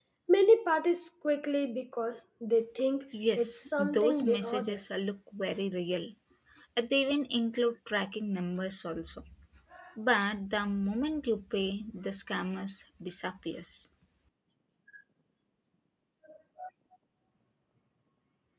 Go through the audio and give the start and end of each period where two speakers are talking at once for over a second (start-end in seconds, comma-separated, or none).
3.4-4.8